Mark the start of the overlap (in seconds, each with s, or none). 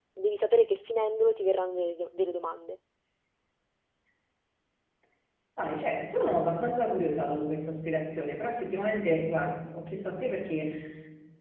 none